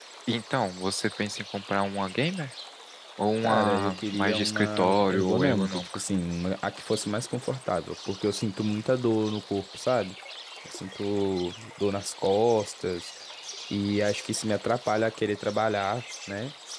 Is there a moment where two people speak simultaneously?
Yes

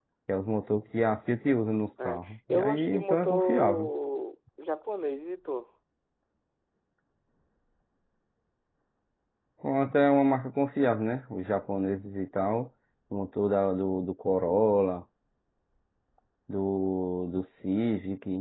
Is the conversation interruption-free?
No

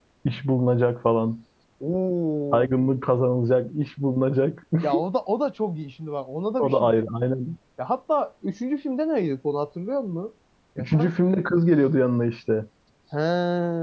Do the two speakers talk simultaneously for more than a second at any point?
No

